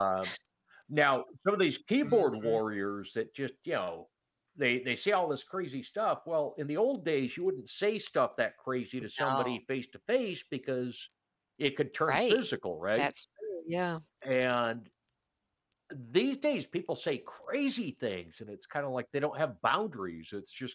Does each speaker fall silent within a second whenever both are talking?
Yes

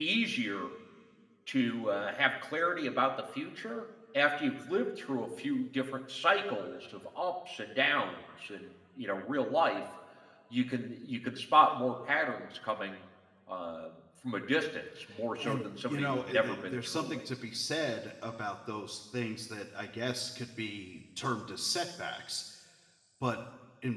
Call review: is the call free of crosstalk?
No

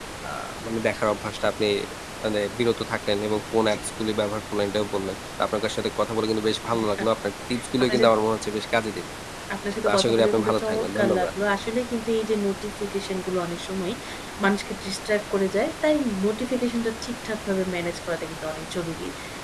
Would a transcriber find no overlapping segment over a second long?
No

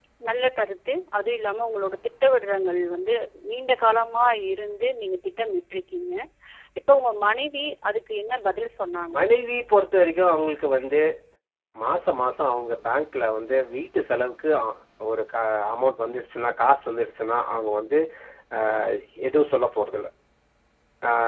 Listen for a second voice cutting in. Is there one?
No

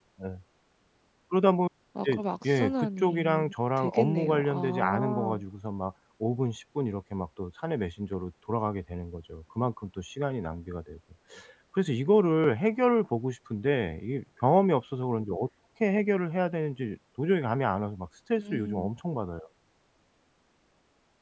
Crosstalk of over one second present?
Yes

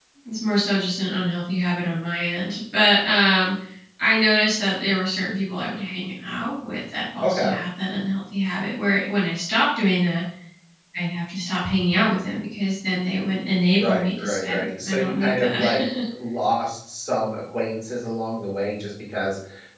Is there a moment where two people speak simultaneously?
Yes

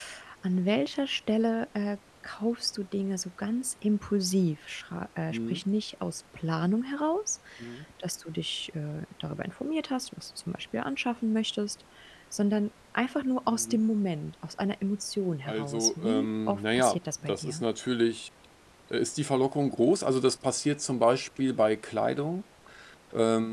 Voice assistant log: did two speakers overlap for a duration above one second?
Yes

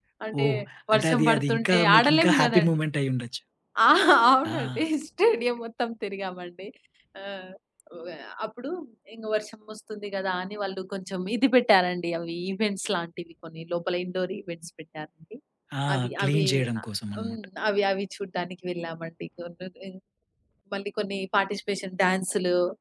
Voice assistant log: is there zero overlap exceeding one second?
No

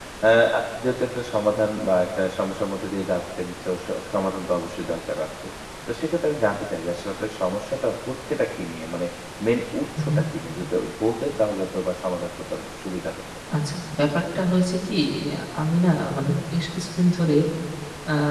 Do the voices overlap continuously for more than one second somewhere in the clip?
No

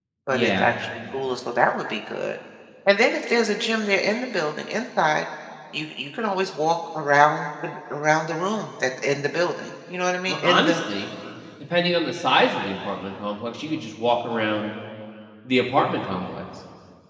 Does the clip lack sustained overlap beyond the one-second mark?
Yes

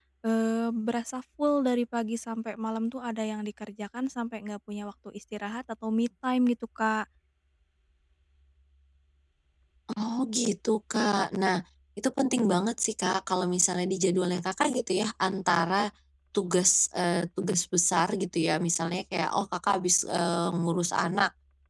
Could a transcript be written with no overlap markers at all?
Yes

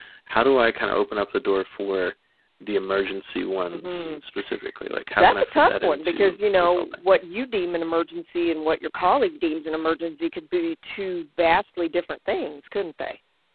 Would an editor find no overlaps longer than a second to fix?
No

